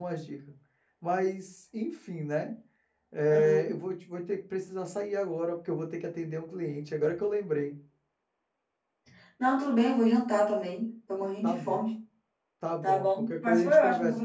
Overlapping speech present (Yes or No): Yes